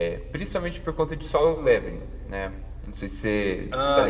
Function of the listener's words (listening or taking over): taking over